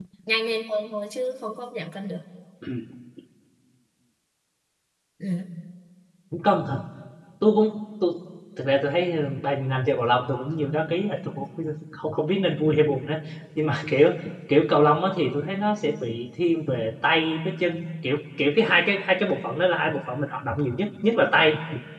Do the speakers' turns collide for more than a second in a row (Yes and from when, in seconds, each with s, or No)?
No